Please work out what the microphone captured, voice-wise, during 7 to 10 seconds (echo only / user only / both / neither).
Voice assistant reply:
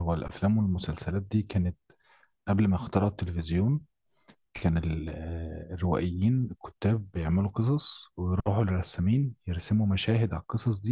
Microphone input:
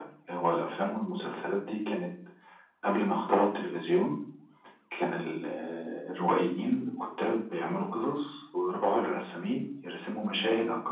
echo only